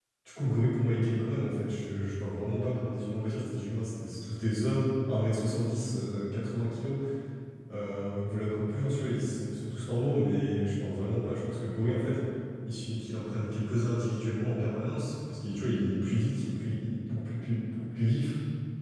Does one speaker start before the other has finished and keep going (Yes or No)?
No